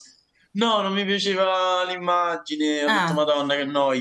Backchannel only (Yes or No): Yes